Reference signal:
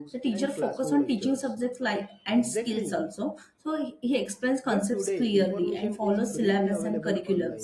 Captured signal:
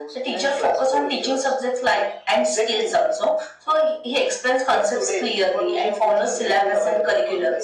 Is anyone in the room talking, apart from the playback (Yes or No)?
No